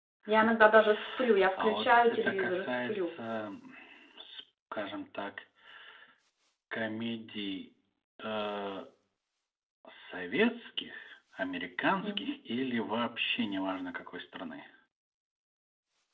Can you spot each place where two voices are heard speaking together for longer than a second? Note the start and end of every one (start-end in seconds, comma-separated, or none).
1.6-3.1